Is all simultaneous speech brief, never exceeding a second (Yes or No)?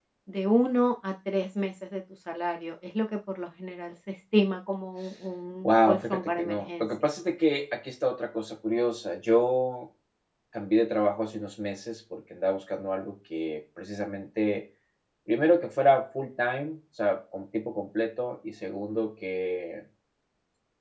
No